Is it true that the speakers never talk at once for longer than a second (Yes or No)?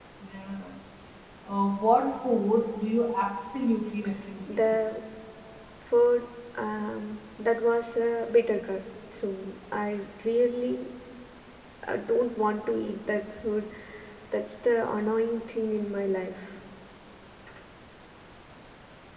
Yes